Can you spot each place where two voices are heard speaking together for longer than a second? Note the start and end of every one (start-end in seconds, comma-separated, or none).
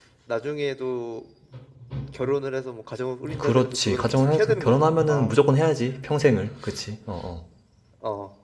3.4-5.4